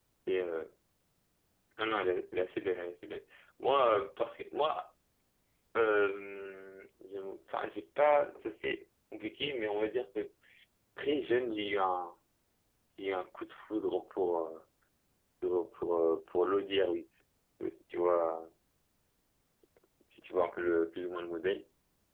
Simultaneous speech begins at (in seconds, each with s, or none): none